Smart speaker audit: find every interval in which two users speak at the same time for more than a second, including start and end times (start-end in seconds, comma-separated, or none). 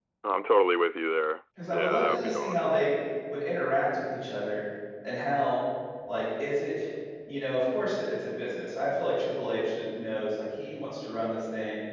1.6-2.9